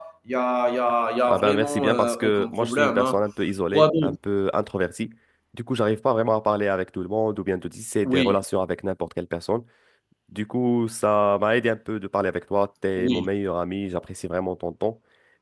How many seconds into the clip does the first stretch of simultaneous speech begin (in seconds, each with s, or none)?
1.3 s